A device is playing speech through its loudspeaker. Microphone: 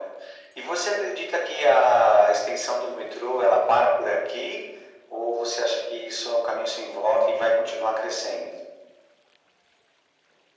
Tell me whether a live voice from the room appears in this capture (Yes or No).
No